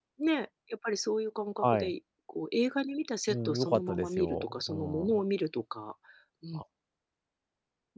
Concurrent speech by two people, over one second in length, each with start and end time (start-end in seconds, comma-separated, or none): 3.3-5.1